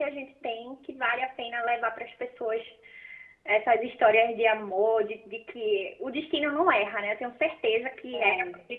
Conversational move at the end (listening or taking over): listening